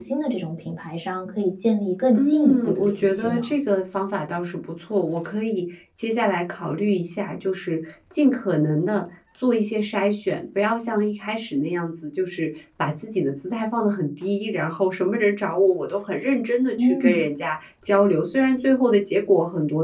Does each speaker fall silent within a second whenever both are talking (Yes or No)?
No